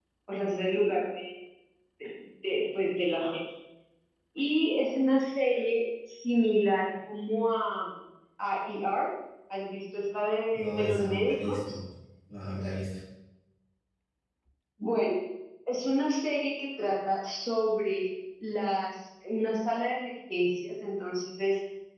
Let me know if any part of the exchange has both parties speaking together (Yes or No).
Yes